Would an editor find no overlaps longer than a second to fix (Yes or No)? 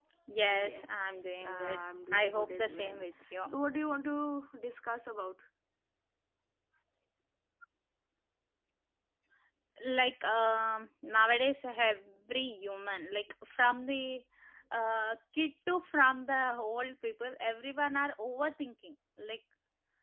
No